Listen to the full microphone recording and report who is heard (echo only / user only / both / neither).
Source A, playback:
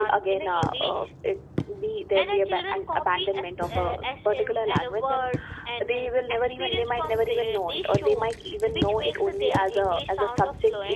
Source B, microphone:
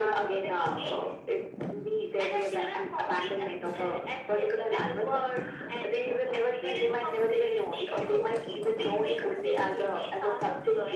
echo only